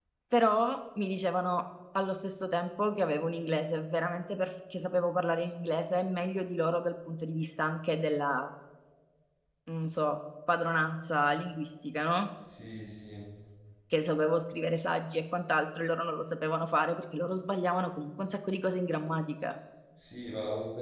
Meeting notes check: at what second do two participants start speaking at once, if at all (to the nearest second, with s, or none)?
none